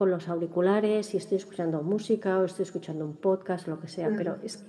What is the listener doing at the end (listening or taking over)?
listening